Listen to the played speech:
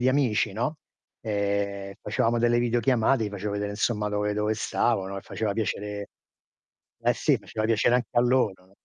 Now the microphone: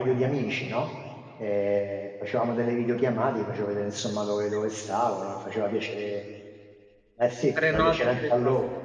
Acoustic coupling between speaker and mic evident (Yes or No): Yes